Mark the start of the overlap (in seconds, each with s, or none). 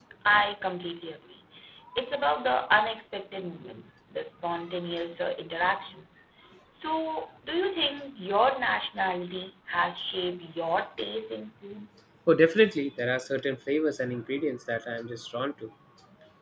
none